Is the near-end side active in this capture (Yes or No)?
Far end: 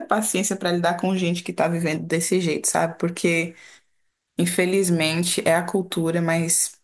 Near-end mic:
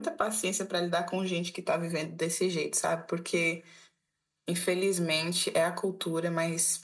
No